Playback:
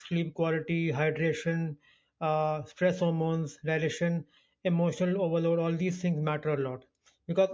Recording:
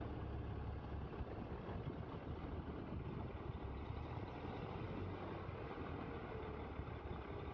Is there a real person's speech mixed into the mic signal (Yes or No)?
No